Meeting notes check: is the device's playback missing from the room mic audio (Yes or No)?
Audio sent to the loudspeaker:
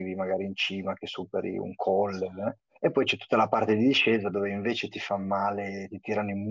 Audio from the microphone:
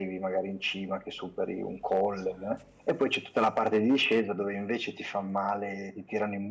No